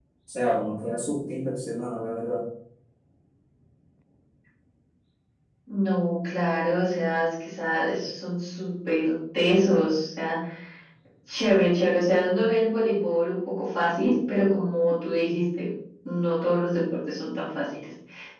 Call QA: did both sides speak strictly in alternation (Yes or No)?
Yes